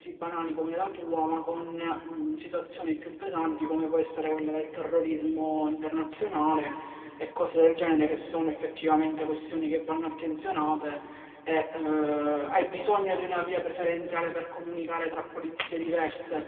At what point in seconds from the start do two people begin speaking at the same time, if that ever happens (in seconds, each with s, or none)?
none